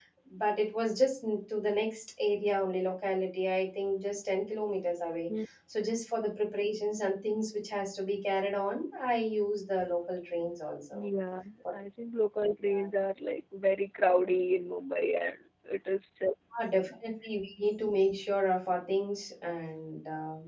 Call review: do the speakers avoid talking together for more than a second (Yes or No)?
Yes